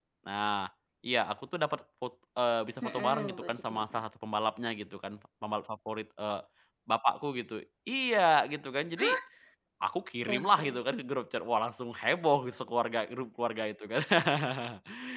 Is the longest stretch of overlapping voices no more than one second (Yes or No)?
No